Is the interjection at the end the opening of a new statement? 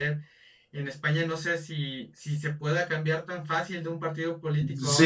Yes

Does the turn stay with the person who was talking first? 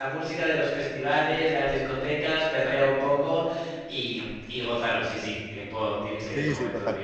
No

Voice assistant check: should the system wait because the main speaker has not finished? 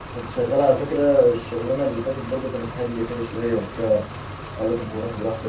Yes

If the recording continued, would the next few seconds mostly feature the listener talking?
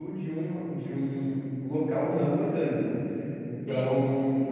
Yes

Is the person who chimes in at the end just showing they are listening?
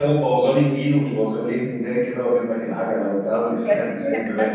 No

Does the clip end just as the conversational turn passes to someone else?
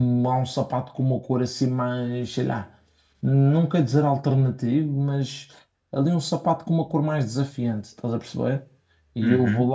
No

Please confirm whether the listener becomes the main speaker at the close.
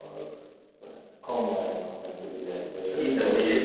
Yes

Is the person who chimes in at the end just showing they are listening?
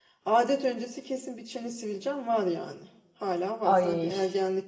Yes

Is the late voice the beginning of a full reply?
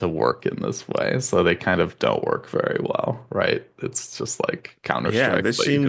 Yes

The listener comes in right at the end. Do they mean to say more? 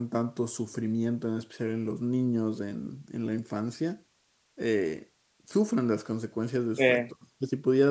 No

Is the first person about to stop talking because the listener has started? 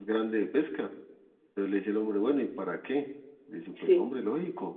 No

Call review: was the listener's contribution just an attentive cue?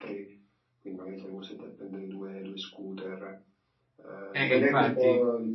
Yes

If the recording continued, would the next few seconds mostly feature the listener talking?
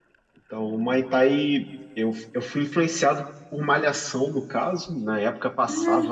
No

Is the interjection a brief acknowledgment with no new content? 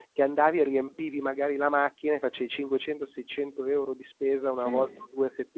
Yes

